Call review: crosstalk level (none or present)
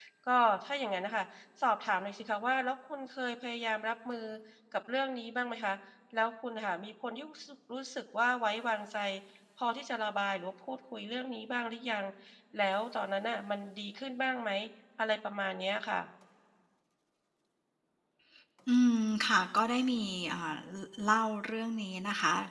none